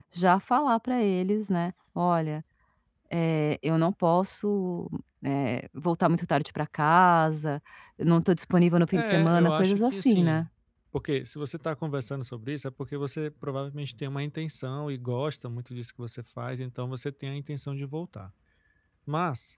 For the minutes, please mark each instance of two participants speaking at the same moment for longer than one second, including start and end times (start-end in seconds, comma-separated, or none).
8.9-10.5